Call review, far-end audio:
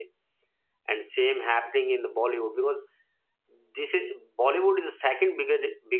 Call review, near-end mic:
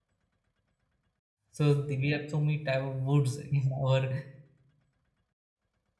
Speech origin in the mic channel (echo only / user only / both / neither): user only